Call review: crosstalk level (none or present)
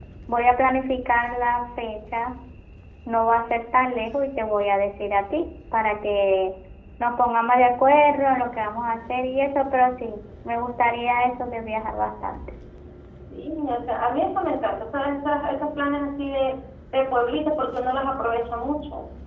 none